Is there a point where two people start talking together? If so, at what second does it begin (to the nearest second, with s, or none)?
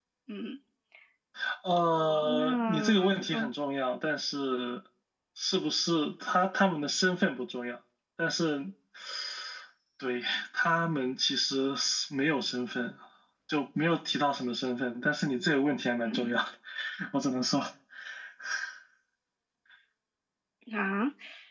2 s